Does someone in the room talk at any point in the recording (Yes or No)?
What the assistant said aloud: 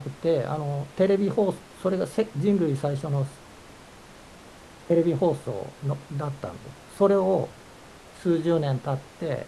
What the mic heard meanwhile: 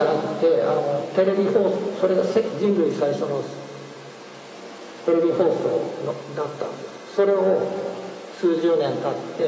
No